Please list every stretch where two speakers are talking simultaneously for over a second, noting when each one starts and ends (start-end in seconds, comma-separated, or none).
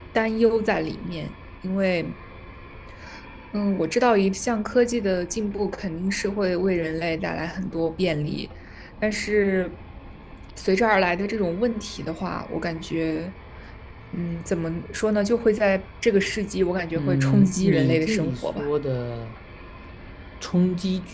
17.0-18.7